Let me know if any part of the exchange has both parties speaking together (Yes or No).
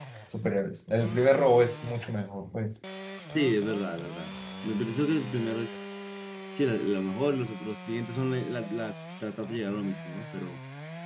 No